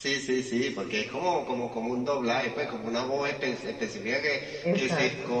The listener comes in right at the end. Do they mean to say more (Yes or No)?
No